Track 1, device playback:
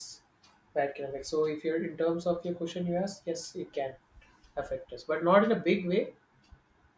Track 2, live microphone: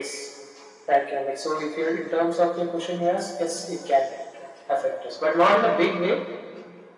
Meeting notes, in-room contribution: none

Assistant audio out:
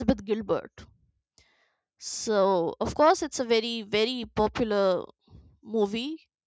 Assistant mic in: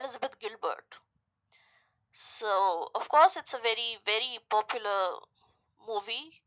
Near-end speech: none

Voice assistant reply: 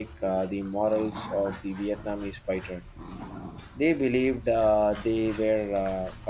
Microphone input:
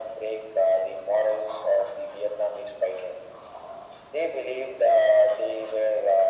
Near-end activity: none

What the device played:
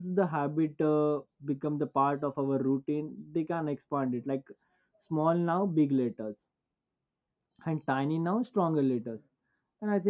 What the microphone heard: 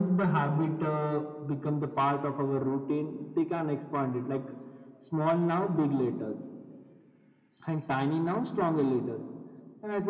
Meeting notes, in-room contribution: none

